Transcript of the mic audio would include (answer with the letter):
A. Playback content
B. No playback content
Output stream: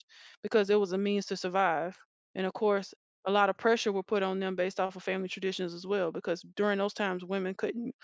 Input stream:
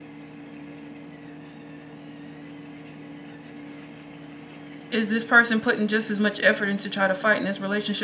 B